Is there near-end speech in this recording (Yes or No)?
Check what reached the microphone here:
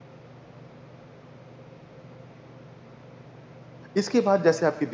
Yes